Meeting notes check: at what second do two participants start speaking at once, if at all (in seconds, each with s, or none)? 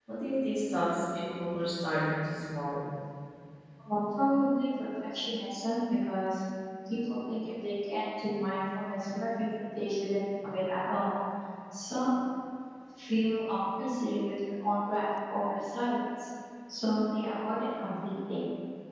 none